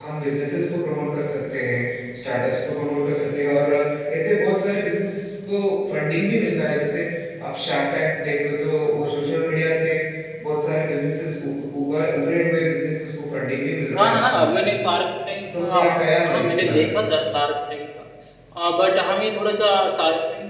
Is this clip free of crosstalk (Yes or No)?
No